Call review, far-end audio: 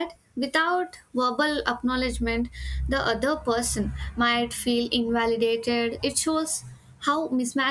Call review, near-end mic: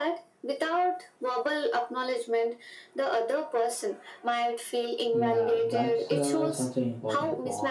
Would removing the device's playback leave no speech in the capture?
No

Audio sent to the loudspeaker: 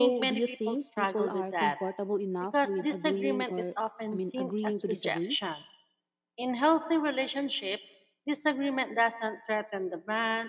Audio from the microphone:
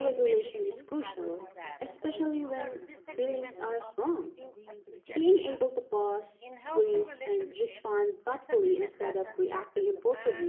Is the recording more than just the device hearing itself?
Yes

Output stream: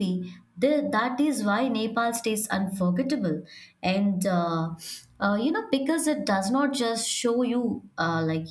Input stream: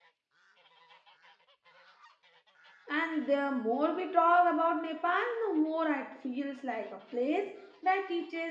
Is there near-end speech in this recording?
Yes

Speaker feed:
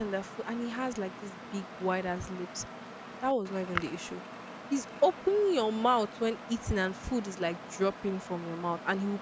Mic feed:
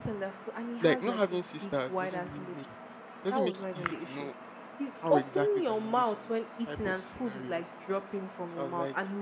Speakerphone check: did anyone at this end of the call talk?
Yes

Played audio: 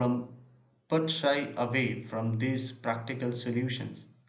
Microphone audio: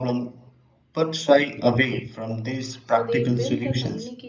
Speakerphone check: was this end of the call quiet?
No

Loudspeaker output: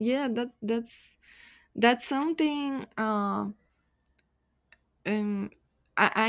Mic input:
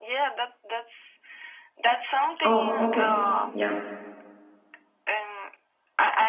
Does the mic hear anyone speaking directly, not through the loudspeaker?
Yes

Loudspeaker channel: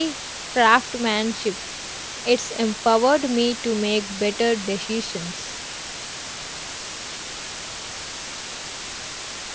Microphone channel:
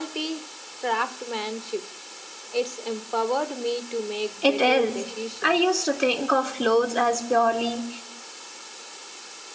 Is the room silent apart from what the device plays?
No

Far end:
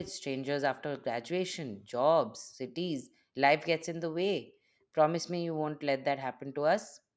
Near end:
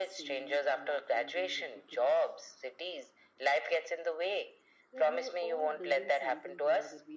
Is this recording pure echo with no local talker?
No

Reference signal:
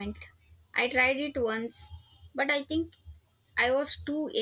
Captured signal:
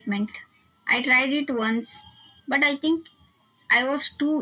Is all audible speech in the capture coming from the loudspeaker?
Yes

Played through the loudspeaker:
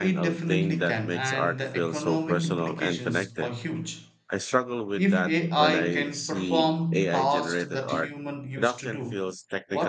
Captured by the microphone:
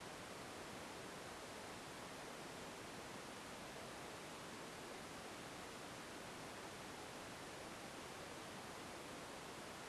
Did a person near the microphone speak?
No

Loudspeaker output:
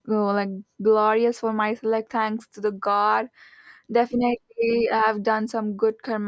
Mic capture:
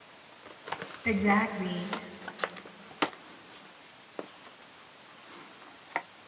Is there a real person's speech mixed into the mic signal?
Yes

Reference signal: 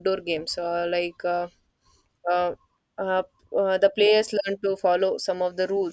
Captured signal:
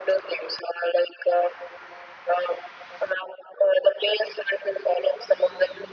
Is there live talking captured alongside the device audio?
No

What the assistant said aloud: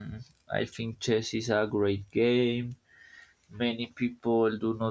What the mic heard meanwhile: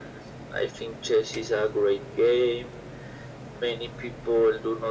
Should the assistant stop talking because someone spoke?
No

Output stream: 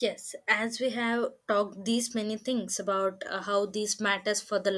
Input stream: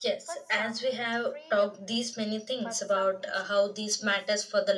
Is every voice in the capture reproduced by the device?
No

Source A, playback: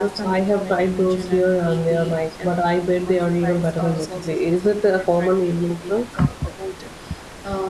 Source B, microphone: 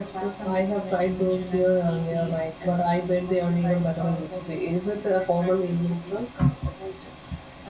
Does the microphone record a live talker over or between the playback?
No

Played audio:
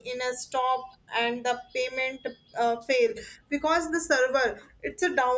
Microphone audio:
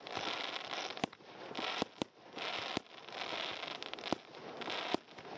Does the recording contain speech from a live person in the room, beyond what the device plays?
No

